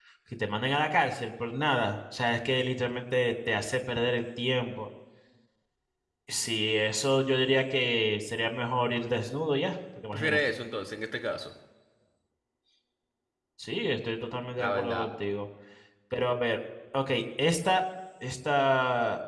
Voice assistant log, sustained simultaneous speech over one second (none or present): none